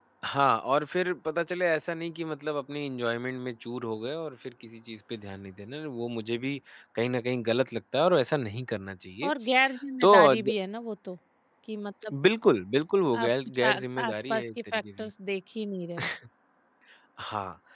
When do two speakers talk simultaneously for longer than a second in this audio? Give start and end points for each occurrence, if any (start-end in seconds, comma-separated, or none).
13.2-15.1